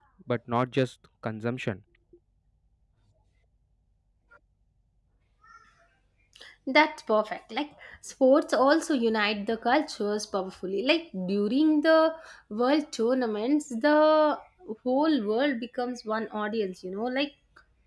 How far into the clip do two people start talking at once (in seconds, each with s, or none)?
none